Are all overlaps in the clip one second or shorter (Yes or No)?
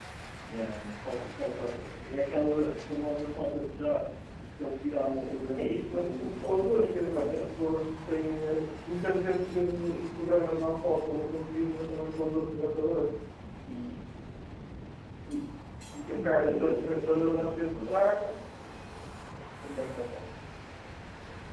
No